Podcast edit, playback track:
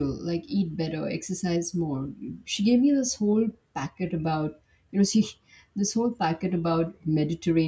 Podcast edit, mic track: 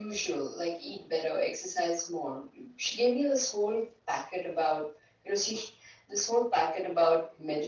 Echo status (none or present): present